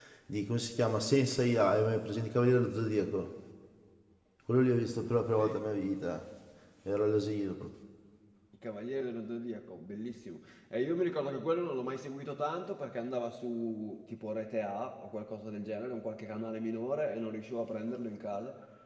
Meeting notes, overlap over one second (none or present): none